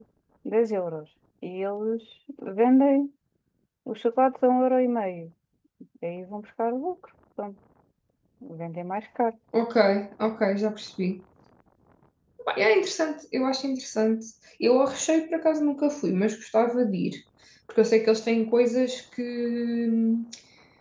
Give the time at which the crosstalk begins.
none

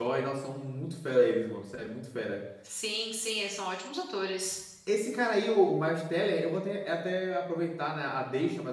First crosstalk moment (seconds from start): none

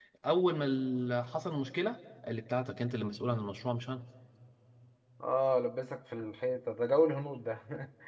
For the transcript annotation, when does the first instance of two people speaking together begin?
none

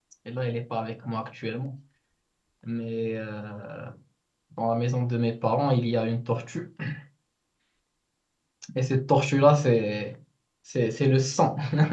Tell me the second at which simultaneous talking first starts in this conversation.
none

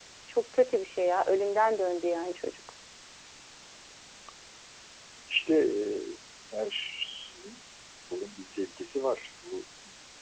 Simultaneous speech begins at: none

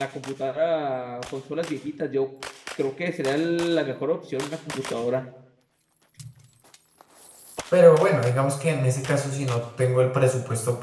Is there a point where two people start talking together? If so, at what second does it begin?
none

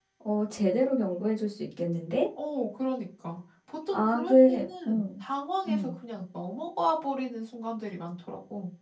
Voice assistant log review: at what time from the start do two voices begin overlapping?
3.9 s

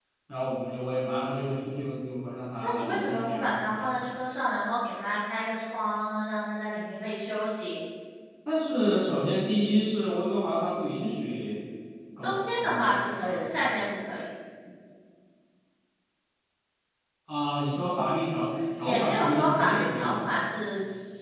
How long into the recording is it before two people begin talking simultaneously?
2.6 s

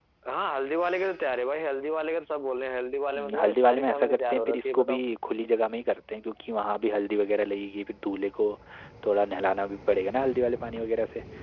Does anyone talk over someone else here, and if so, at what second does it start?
3.1 s

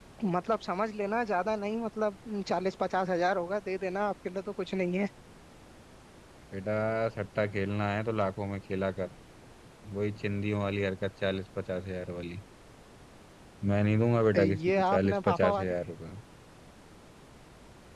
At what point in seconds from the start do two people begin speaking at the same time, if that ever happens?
14.3 s

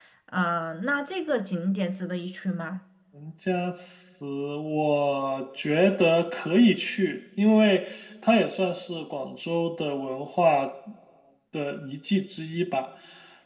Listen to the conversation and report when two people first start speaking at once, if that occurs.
none

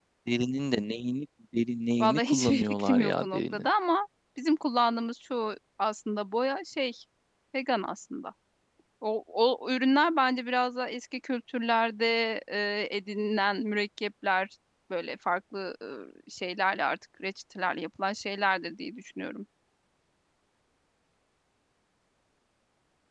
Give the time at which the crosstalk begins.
2.0 s

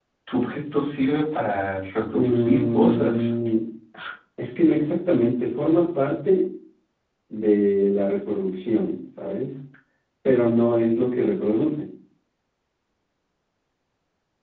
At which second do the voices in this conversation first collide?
2.1 s

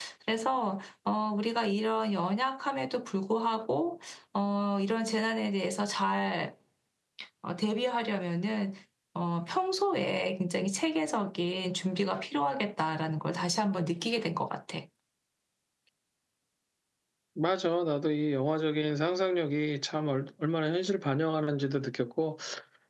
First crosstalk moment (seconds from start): none

